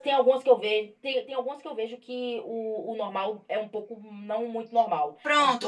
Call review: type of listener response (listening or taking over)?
taking over